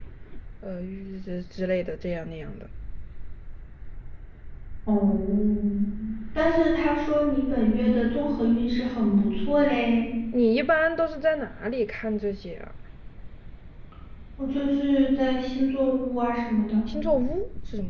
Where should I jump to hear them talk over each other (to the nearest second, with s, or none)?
none